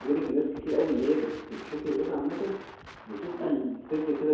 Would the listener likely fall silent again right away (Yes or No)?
Yes